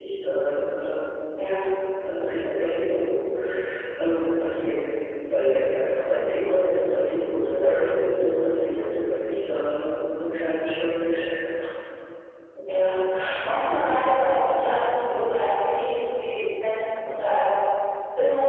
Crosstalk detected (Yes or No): No